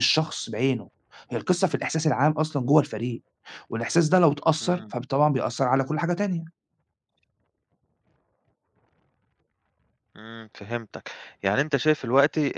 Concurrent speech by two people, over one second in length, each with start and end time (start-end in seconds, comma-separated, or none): none